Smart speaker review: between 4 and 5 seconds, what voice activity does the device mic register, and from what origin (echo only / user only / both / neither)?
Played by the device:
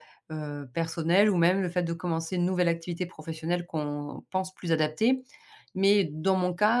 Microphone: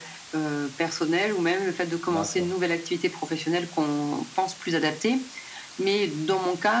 echo only